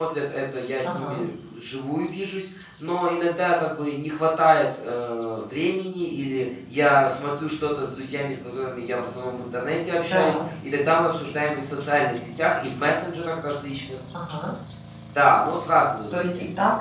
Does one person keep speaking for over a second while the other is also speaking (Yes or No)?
No